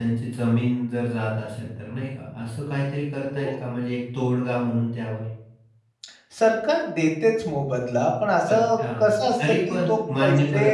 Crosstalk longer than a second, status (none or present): present